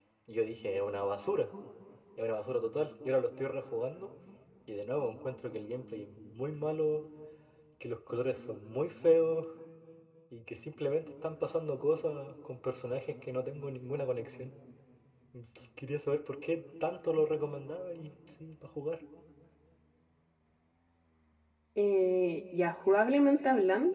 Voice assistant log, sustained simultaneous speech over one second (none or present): none